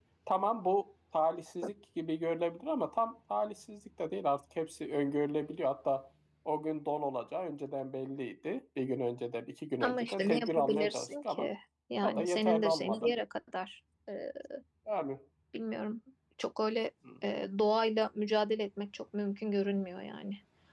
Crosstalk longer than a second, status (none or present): present